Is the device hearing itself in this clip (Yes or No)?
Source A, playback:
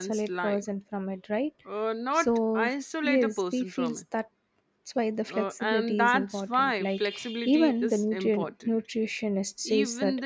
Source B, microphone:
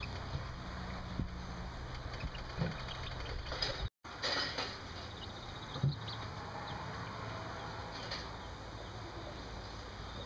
No